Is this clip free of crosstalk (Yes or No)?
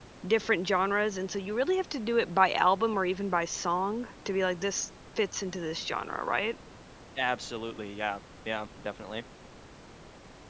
Yes